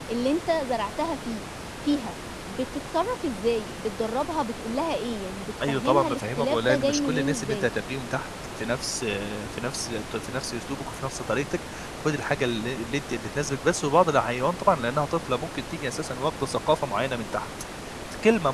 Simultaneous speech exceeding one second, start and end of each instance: 5.7-7.7

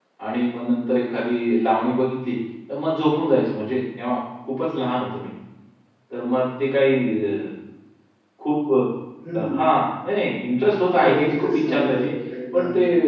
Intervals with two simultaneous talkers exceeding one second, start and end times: 10.9-12.1

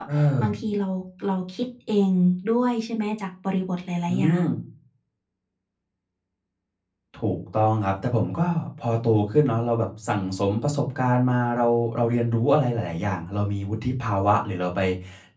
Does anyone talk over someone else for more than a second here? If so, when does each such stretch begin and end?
none

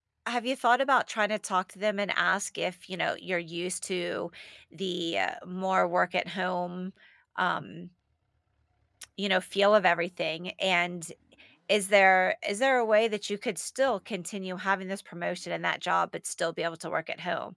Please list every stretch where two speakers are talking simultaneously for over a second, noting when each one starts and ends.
none

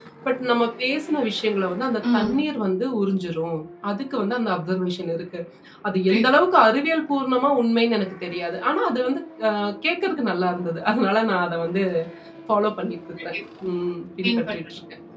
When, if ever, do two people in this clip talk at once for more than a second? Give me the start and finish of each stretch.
none

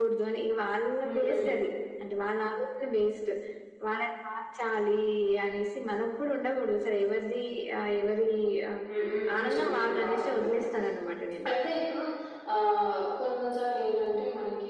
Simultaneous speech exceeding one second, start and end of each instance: 9.4-10.6

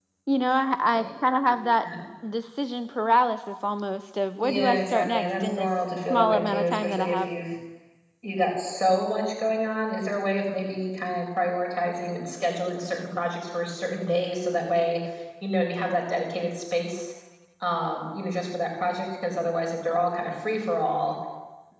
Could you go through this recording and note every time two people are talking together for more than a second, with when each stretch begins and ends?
4.4-7.3

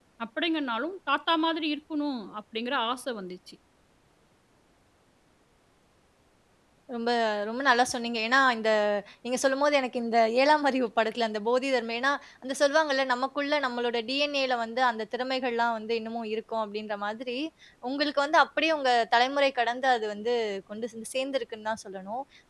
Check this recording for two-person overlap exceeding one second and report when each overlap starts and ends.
none

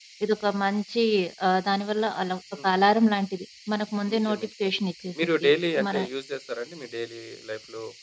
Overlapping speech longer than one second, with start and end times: none

